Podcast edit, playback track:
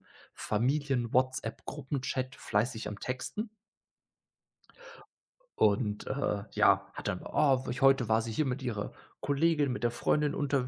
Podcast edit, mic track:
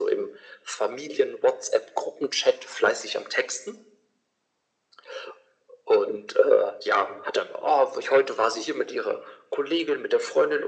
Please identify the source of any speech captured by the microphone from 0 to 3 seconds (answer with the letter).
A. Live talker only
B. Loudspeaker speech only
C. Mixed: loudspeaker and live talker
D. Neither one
B